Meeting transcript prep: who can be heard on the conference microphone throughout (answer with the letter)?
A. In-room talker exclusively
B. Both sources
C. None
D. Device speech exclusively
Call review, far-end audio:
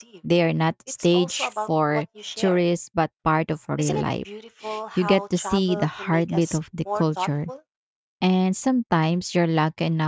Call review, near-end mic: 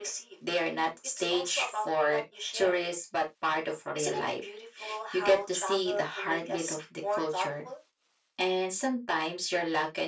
D